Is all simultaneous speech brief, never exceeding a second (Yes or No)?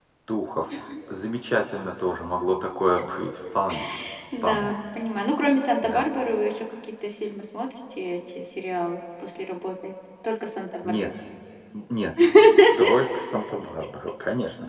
Yes